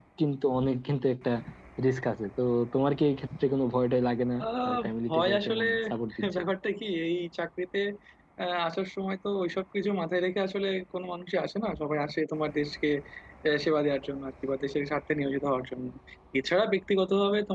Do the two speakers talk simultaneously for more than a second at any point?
Yes, from 4.4 s

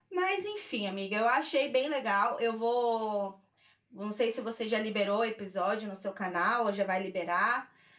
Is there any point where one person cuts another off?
No

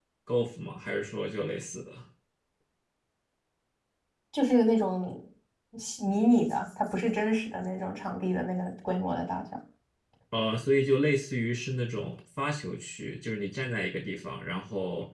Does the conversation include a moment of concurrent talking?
No

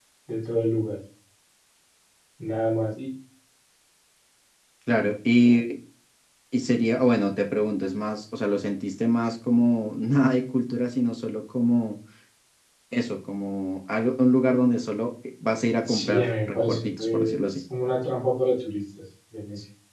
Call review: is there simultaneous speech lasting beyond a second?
Yes, from 15.8 s

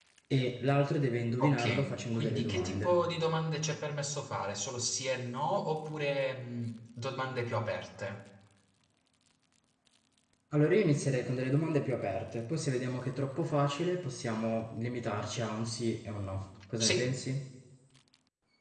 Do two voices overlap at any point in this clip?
Yes, from 1.4 s

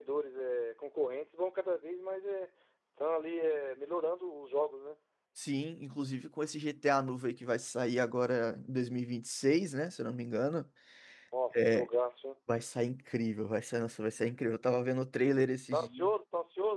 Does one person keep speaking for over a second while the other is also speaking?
No

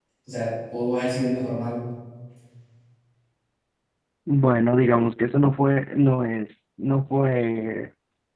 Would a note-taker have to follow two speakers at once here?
No

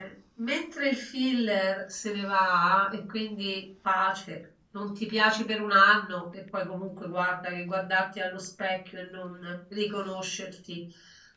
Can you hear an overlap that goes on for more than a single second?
No

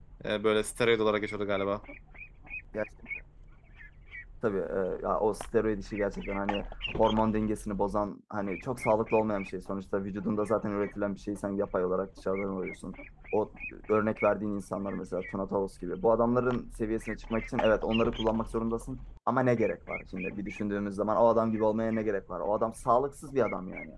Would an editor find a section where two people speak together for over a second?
No

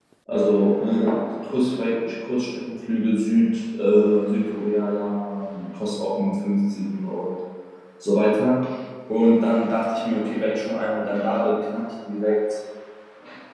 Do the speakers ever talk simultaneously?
No

